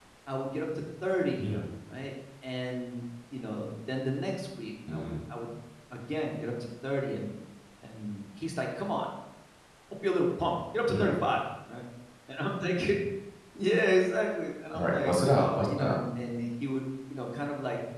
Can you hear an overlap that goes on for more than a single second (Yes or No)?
Yes